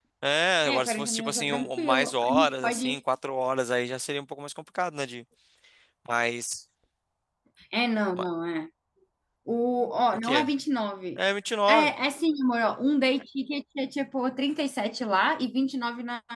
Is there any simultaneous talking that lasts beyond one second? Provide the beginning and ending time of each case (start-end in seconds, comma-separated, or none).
0.6-3.0